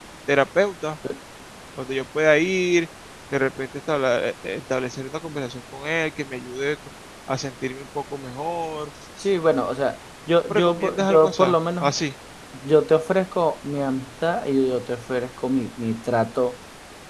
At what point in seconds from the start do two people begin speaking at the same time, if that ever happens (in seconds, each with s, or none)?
10.5 s